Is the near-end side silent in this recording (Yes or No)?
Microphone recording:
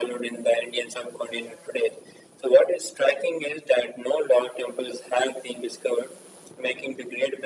Yes